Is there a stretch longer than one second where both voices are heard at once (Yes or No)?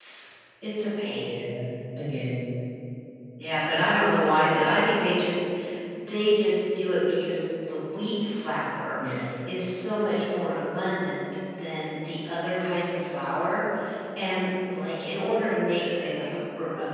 No